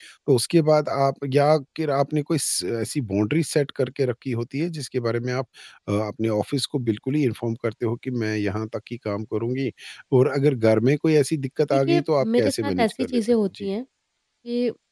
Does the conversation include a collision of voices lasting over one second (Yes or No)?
Yes